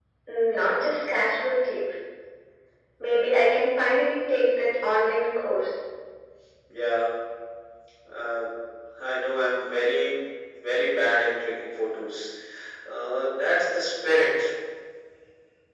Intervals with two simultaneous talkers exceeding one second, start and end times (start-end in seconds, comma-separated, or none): none